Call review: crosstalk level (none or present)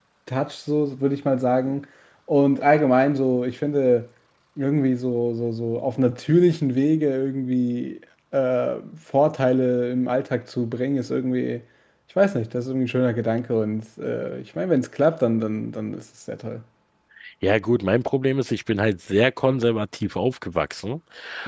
none